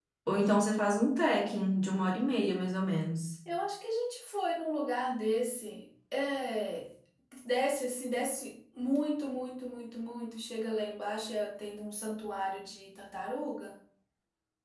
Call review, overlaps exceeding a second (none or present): none